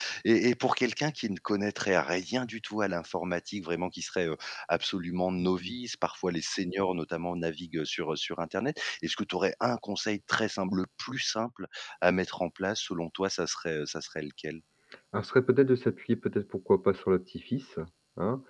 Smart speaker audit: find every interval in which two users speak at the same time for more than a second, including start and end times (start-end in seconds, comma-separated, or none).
none